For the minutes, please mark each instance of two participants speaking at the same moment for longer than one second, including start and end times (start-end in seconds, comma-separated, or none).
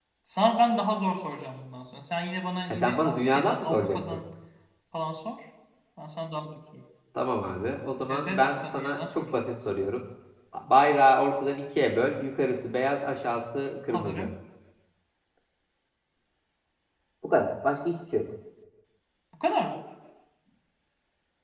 2.7-4.2, 8.1-9.4